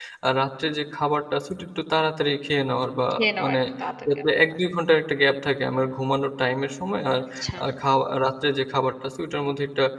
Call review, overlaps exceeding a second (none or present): none